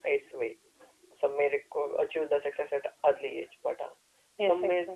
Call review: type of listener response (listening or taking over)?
taking over